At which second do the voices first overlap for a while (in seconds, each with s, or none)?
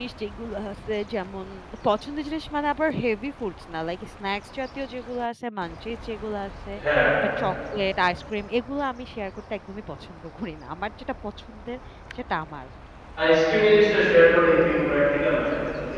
none